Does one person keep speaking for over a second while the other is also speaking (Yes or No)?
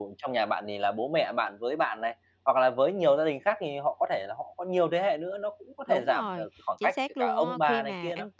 Yes